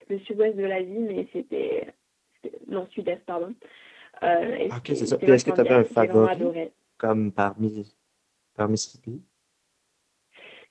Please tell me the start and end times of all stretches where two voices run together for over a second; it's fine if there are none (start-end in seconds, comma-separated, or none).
4.7-6.5